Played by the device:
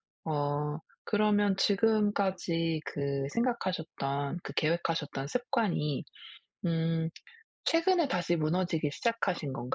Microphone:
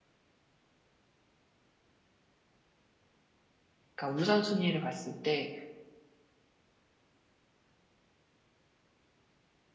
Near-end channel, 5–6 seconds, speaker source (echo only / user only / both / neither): user only